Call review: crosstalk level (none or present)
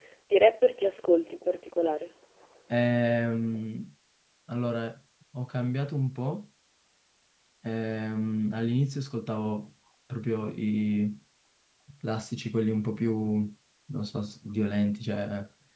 none